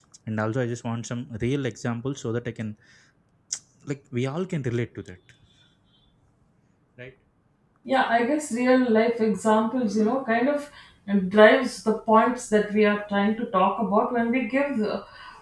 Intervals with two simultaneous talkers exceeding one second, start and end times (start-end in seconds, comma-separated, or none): none